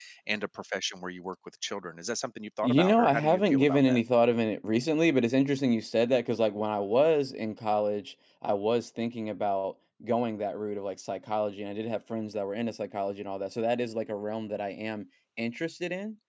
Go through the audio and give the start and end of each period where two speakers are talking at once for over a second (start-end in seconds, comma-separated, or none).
2.6-4.0